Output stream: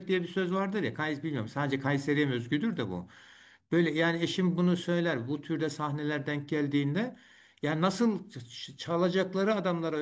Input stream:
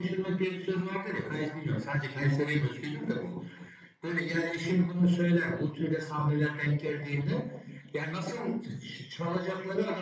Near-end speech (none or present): none